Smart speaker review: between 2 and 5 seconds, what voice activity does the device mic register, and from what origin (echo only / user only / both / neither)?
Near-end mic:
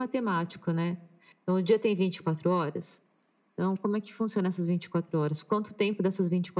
echo only